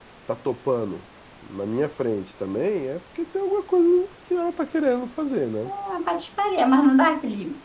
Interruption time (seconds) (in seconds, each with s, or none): none